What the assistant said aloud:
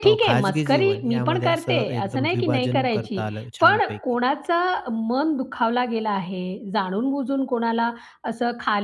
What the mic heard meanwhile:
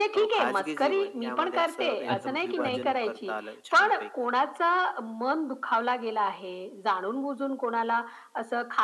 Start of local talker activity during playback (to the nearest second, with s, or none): 2 s